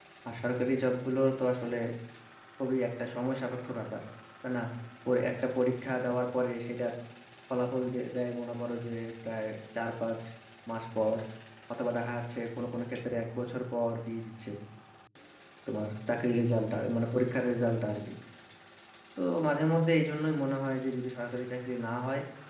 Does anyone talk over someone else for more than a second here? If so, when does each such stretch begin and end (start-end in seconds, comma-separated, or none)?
none